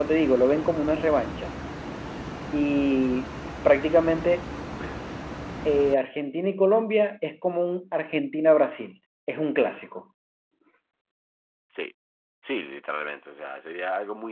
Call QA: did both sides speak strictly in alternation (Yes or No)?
Yes